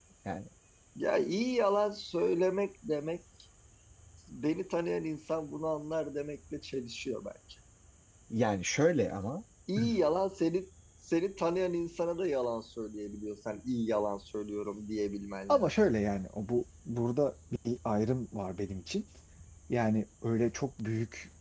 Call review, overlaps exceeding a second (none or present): none